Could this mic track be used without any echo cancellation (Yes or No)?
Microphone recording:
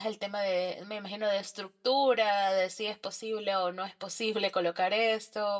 Yes